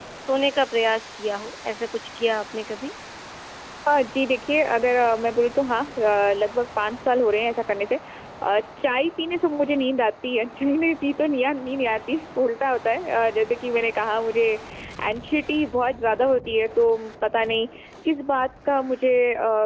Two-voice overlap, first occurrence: none

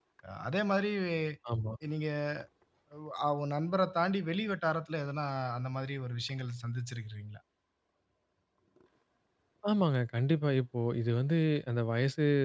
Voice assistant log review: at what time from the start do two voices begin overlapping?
none

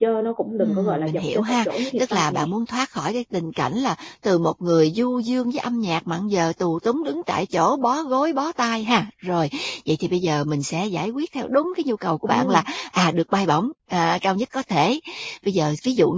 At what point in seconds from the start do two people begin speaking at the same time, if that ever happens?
1 s

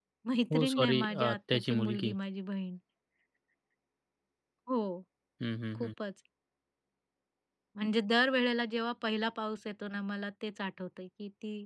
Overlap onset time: 1 s

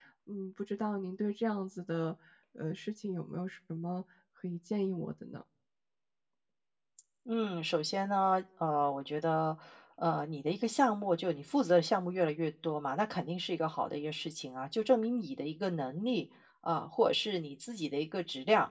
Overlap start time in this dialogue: none

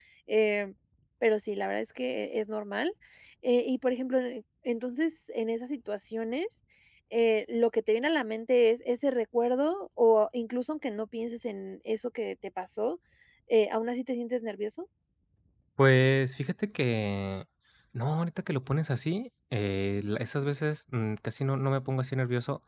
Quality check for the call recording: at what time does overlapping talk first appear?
none

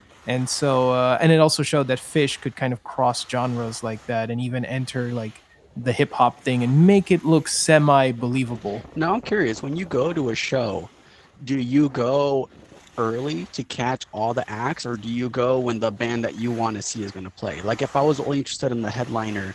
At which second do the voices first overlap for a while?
none

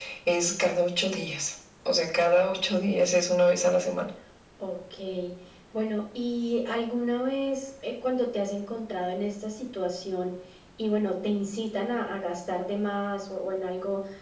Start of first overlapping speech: none

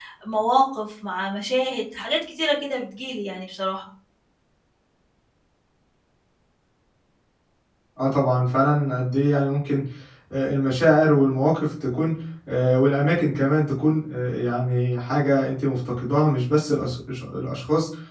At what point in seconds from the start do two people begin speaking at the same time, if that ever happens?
none

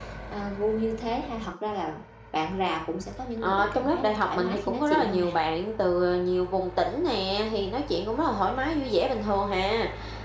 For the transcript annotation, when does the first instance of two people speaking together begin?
3 s

